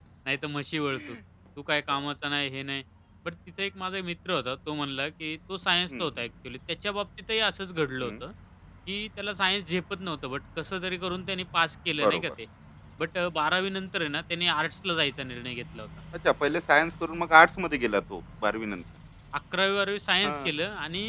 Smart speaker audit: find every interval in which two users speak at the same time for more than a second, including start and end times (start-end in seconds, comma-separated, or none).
none